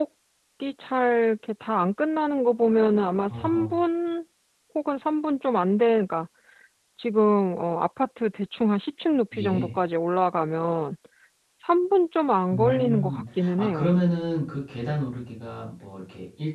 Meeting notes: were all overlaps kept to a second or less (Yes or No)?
No